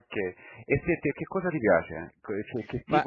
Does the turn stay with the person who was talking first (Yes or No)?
No